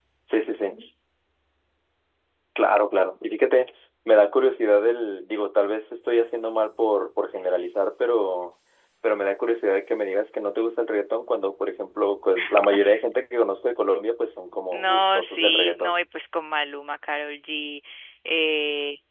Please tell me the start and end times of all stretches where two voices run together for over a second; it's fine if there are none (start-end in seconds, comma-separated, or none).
14.7-15.9